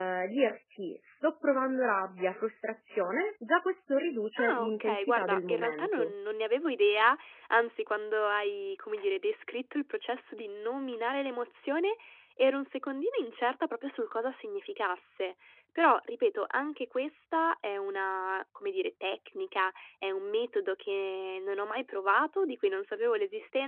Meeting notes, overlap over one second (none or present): present